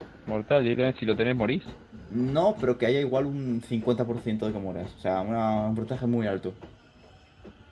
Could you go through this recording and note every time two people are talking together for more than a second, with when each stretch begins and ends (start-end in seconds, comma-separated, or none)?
none